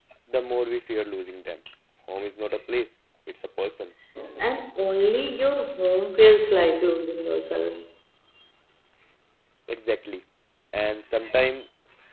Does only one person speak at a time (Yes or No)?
Yes